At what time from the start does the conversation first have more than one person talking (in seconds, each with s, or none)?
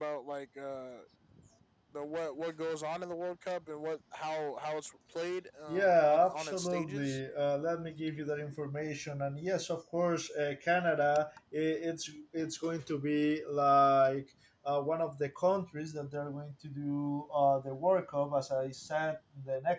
5.7 s